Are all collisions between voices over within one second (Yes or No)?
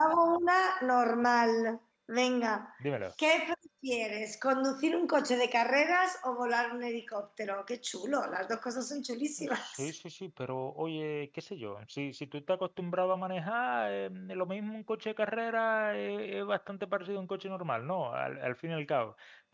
Yes